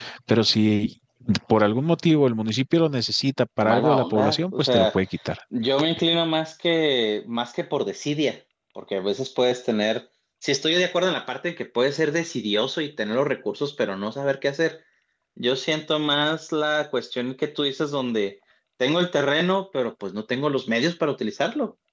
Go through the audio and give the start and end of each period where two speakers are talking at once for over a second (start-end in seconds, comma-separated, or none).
3.6-5.0